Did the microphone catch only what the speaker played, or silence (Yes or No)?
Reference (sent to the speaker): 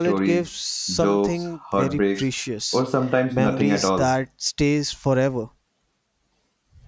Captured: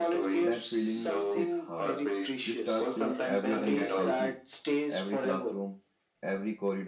No